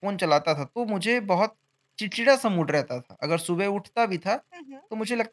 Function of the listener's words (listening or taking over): listening